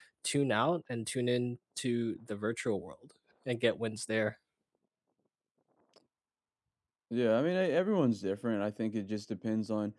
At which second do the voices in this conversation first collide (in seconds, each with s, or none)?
none